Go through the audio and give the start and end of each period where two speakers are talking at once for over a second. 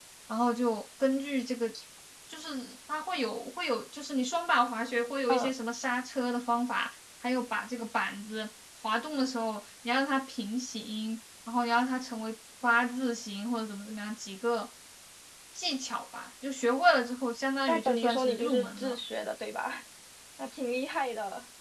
17.7-19.0

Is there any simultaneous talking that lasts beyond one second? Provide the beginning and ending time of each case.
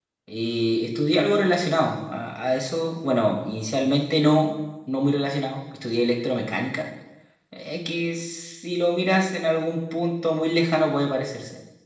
none

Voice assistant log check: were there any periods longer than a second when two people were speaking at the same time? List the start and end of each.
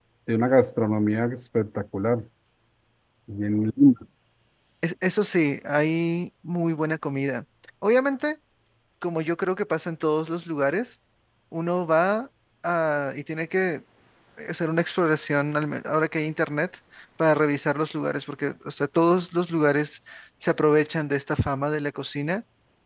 none

